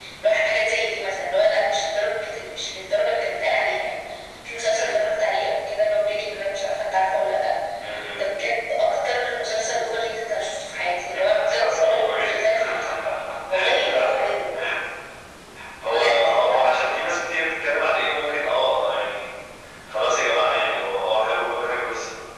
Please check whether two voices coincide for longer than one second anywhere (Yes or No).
Yes